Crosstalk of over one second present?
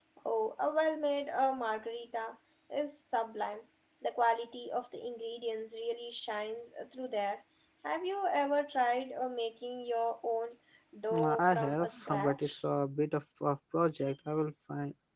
Yes, from 11.1 s

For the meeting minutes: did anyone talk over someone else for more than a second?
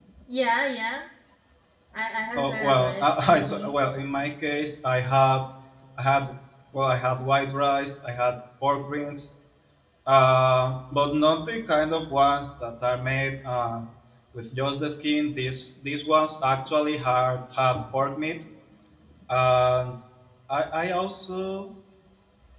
Yes, from 2.4 s

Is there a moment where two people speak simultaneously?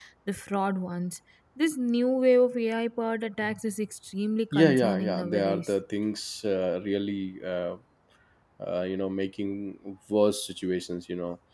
Yes, from 4.5 s

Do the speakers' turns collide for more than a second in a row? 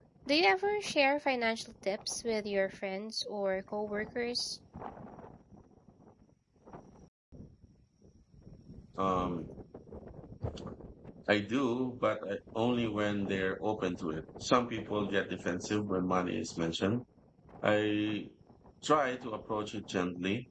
No

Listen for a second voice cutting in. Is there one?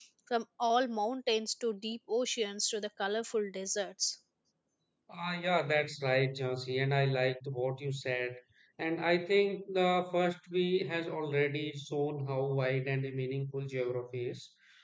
No

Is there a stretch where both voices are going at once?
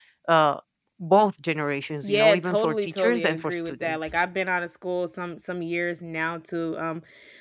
Yes, from 2.0 s

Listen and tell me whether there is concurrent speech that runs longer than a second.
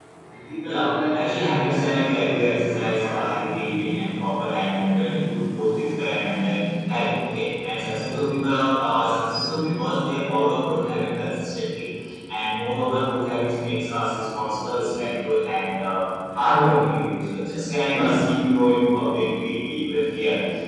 Yes, from 0.6 s

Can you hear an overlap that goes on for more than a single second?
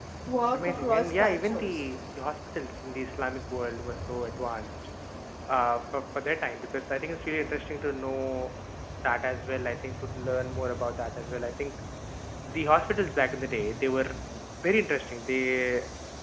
Yes, from 0.5 s

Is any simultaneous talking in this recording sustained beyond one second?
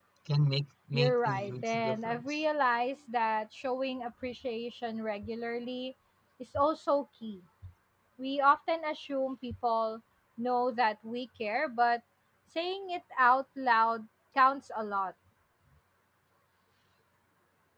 Yes, from 0.9 s

